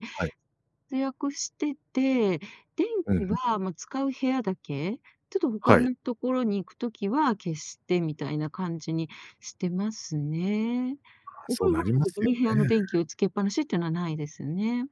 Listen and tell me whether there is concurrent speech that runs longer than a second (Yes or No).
Yes